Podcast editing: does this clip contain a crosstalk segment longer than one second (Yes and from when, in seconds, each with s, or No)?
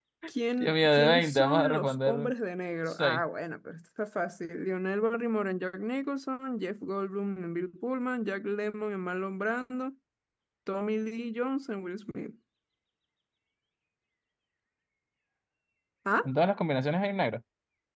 Yes, from 0.6 s